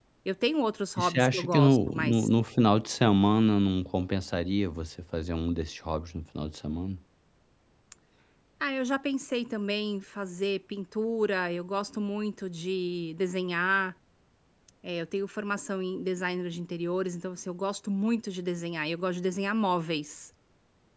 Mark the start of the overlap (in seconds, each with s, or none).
1.0 s